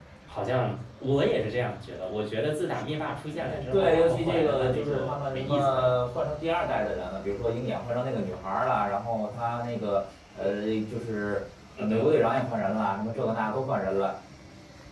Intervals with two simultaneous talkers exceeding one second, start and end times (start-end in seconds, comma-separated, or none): 3.3-6.0